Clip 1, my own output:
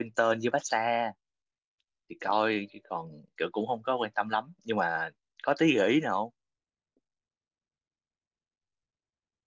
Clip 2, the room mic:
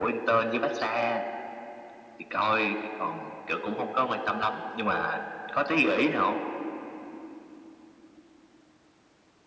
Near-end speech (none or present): none